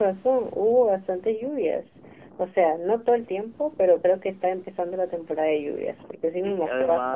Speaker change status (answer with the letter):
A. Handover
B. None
A